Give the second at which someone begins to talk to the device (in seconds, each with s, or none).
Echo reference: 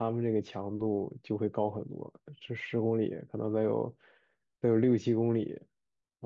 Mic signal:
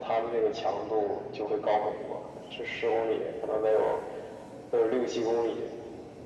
none